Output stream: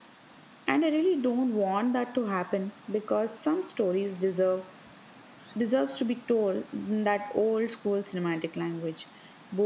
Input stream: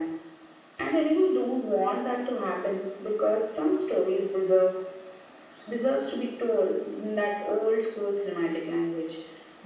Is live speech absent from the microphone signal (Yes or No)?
Yes